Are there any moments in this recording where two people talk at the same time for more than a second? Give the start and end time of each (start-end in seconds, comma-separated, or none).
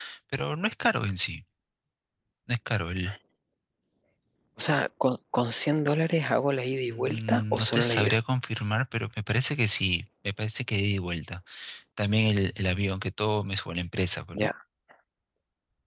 6.9-8.2